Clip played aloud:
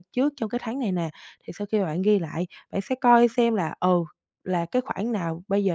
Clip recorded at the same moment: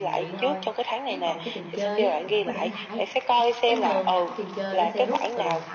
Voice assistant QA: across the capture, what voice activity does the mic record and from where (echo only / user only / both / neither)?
both